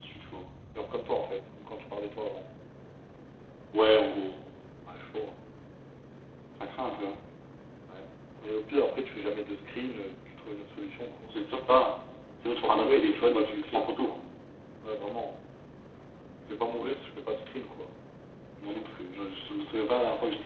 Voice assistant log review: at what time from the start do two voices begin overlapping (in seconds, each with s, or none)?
12.6 s